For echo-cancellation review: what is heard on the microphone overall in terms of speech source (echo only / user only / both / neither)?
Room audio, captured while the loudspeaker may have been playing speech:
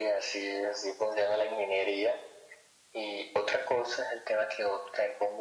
echo only